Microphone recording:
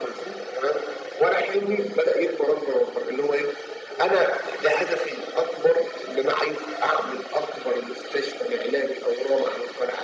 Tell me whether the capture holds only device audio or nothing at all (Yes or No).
Yes